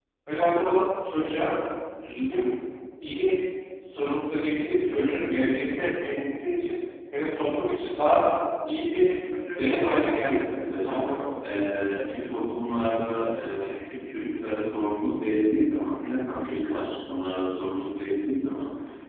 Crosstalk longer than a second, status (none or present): present